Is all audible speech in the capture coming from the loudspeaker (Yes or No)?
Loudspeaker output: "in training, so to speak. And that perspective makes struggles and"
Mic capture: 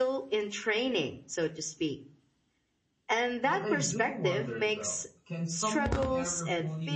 No